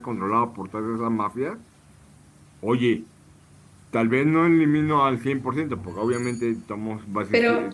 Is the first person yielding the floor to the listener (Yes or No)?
Yes